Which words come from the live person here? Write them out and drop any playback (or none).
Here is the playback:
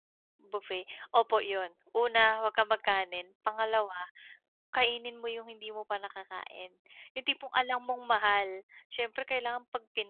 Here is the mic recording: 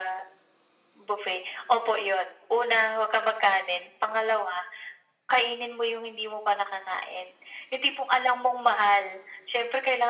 none